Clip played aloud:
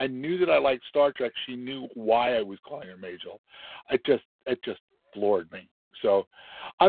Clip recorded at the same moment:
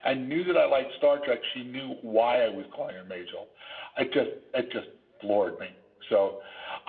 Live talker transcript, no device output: none

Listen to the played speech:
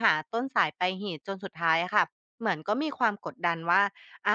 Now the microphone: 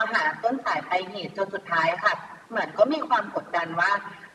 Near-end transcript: none

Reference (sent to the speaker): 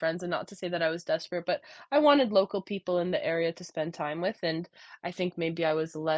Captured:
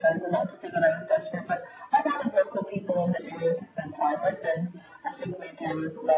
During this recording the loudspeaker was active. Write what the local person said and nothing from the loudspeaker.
none

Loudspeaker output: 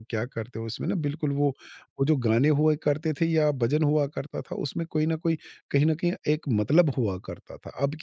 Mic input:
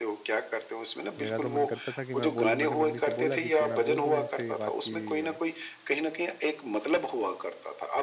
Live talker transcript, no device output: मेरा तो मन करता था कि मैं बोल दूँ मैंने मम्मी से बोला भी कि मैं बोल दूँ उनसे ये बात कि अ,

